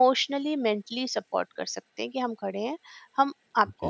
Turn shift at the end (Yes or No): No